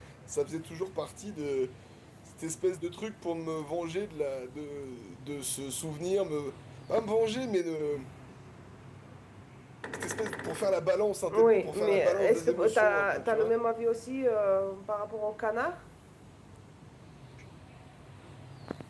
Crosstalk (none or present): present